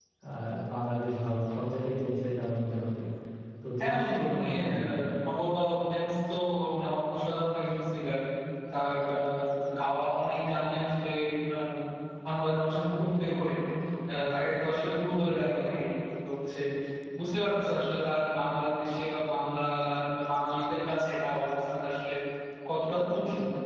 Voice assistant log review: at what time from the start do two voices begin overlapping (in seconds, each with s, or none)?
3.8 s